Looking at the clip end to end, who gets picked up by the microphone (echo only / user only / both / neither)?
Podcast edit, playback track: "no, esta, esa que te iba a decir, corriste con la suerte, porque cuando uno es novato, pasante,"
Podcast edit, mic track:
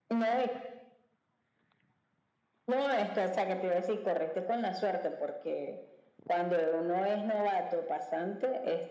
echo only